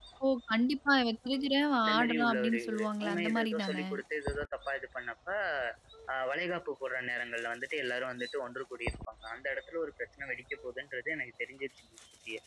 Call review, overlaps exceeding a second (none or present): present